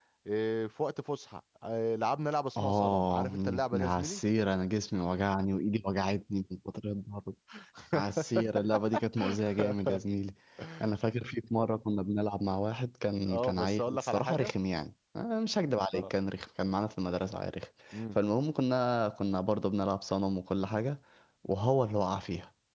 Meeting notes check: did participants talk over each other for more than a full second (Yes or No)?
Yes